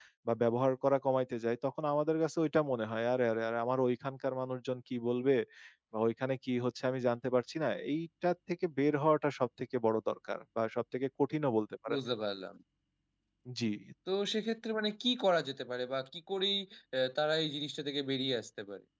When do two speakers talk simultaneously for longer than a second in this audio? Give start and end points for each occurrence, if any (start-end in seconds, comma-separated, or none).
none